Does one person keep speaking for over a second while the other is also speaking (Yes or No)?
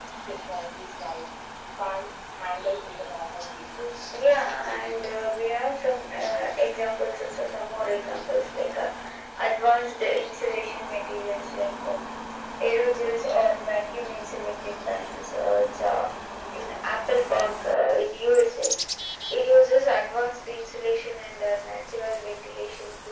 No